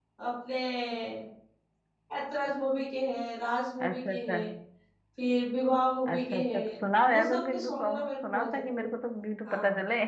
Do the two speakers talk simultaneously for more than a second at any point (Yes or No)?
Yes